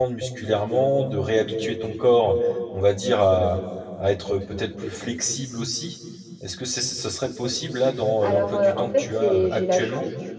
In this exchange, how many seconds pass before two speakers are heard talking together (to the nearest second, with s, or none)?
8 s